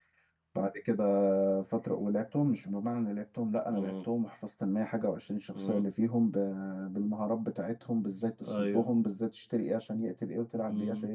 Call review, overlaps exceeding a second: none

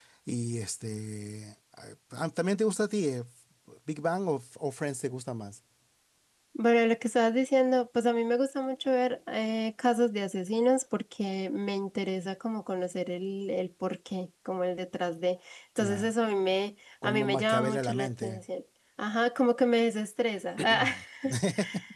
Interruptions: present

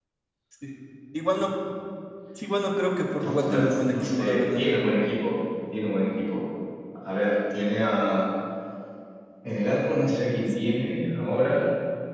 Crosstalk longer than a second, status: present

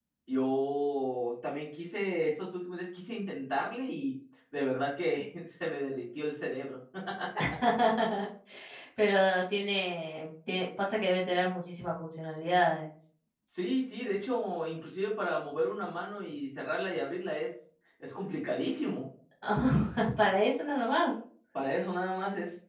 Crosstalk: none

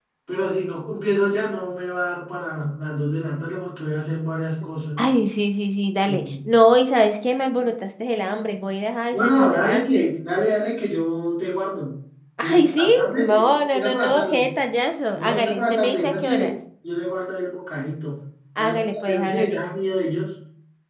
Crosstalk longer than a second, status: present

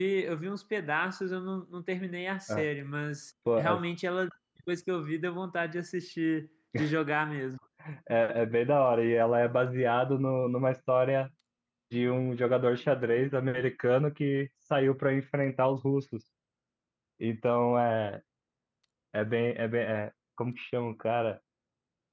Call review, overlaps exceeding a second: none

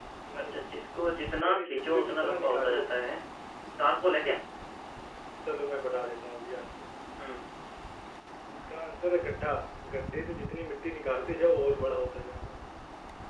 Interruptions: present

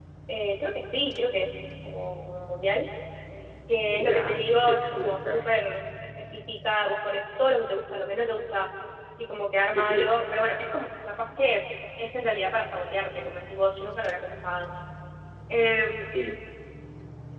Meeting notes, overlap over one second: present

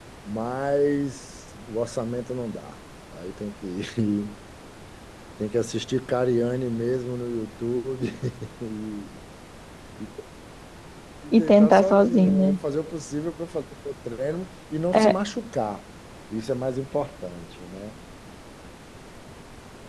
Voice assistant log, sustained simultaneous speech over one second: present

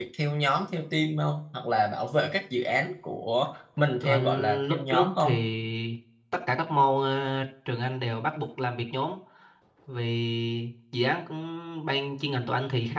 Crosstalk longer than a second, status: present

